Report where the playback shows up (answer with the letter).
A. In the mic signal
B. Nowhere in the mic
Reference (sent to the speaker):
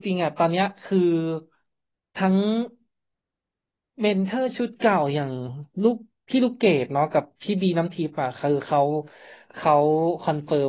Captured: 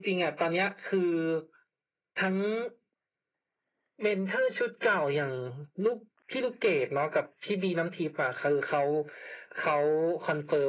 A